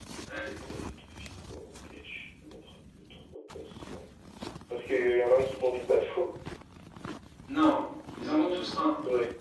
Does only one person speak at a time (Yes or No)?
Yes